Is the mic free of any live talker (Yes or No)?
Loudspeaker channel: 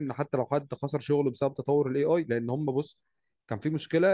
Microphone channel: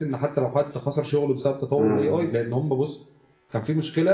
No